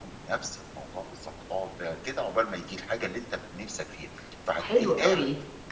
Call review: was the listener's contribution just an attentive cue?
No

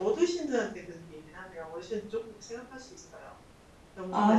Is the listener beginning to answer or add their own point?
No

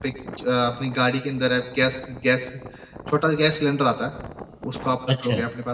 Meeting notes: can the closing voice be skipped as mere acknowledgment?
Yes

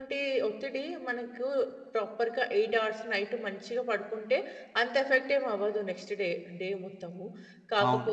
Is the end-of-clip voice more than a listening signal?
Yes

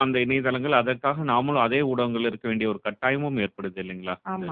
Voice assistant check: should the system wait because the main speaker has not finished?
No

